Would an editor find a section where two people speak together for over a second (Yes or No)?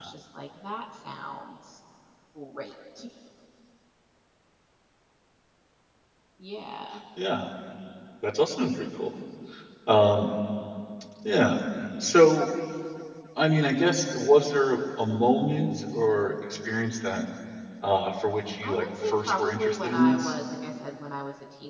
Yes